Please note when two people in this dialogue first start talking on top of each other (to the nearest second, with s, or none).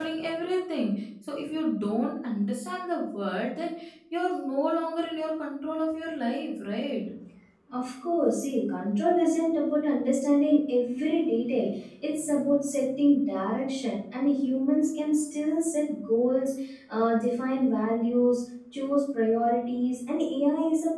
none